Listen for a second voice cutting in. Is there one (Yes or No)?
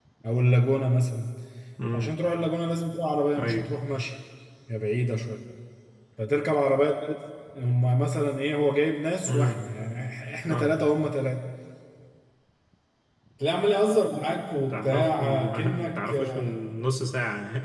Yes